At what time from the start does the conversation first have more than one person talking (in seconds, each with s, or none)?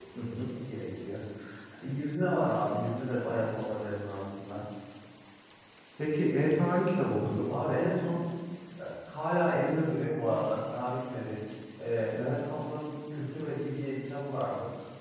none